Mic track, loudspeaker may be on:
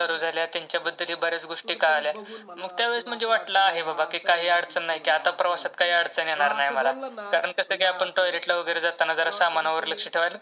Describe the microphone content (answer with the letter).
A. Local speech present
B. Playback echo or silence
A